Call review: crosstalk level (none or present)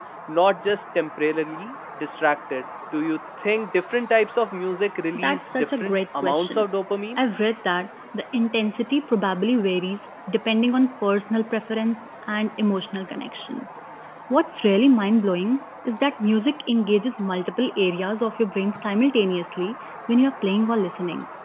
present